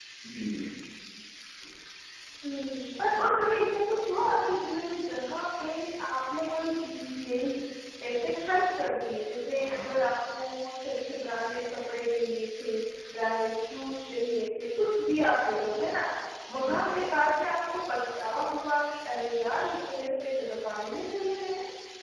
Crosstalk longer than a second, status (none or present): none